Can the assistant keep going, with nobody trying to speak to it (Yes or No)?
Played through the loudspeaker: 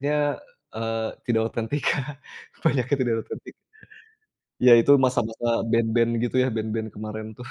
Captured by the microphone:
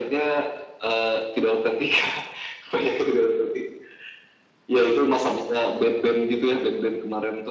Yes